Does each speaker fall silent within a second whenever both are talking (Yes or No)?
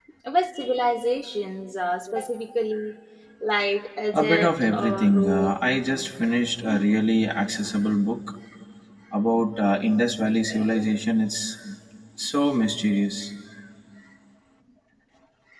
No